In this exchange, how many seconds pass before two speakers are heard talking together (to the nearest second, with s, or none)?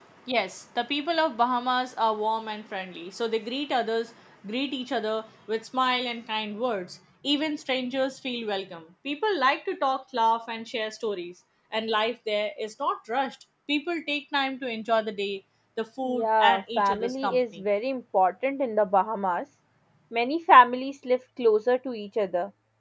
16 s